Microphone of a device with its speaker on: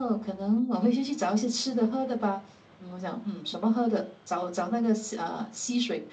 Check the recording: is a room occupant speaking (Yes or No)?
No